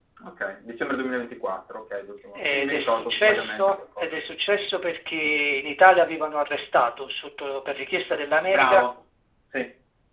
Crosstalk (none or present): present